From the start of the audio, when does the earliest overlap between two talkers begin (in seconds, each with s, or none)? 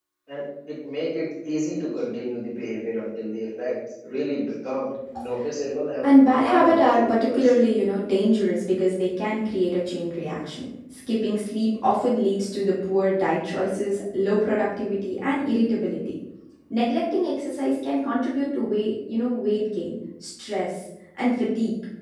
6.0 s